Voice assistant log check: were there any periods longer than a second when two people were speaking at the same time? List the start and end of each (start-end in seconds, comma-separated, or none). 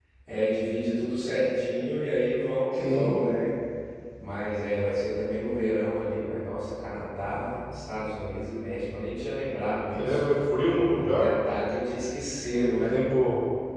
none